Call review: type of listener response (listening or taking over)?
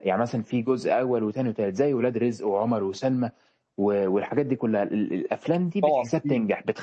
listening